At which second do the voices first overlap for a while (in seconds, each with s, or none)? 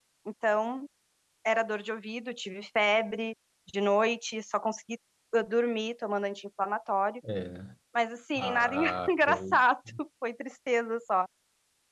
8.4 s